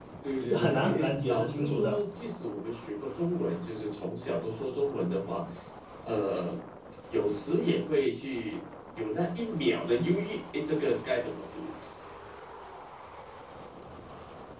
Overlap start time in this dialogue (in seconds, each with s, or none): 0.5 s